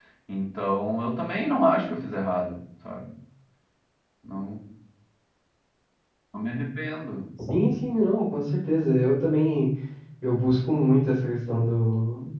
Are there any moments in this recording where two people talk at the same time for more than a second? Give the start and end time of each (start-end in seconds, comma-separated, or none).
none